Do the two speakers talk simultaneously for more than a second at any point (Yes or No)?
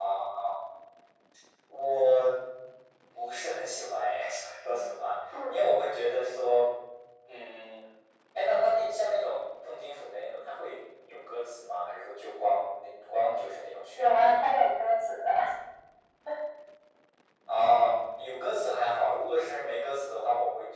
No